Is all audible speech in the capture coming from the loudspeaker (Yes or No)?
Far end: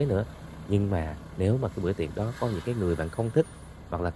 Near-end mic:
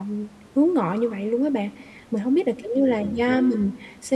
No